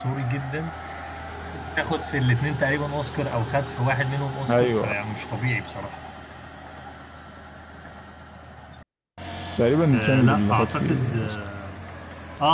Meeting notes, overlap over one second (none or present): present